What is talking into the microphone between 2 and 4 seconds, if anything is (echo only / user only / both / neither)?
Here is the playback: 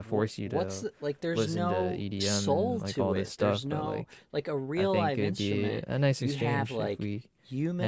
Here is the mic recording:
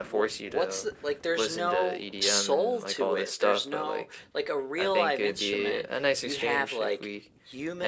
echo only